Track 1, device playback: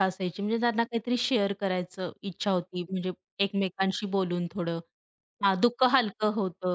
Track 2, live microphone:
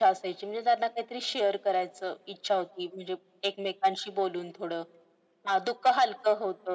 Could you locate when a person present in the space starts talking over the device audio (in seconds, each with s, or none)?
none